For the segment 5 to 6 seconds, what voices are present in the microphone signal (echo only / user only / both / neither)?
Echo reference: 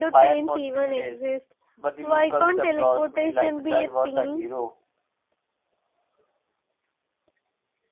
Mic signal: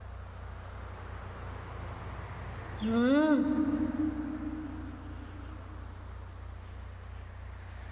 neither